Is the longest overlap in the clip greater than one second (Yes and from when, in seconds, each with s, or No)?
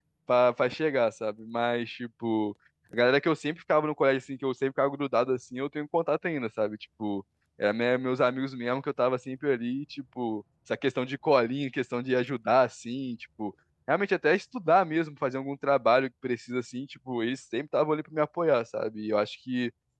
No